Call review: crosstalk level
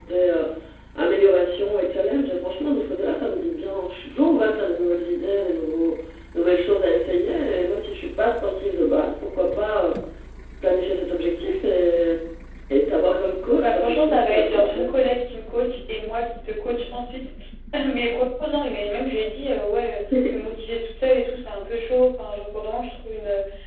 present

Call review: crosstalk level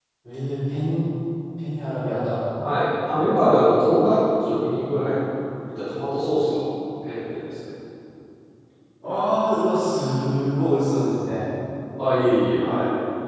none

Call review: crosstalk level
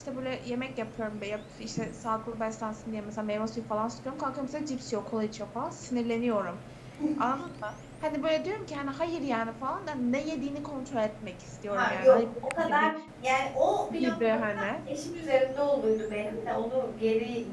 present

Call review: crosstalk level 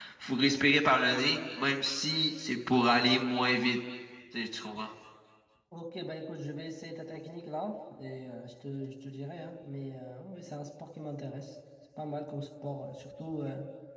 none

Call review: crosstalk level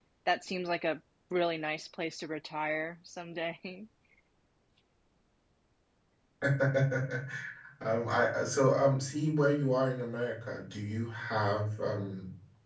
none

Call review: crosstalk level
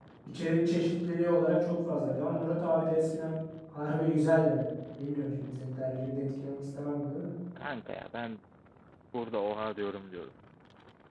none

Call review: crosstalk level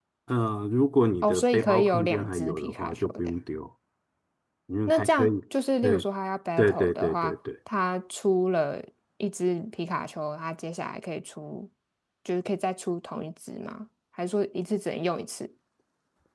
present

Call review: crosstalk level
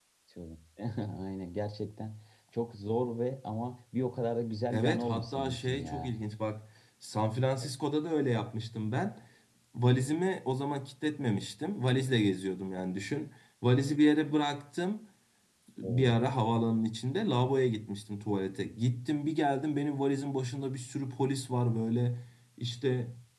present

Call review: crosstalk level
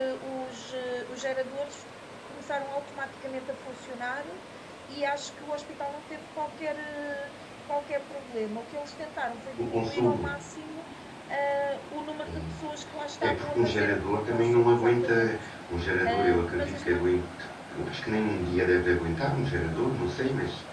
present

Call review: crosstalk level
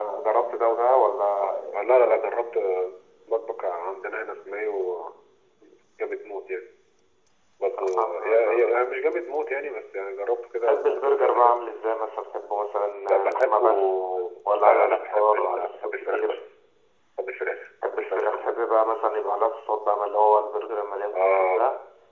present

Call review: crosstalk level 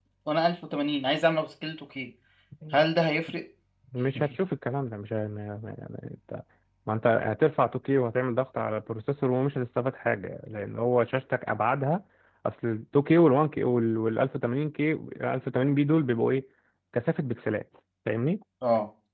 none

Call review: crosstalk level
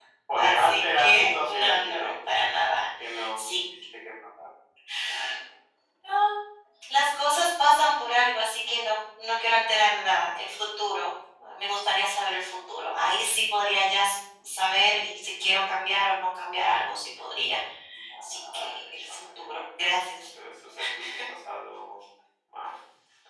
present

